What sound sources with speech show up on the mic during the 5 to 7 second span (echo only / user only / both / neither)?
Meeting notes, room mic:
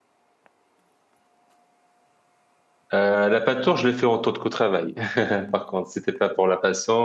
user only